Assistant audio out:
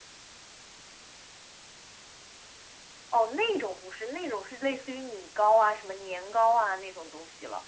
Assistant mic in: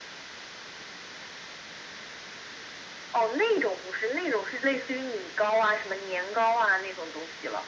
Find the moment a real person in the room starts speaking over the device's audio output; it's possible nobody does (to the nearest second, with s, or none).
none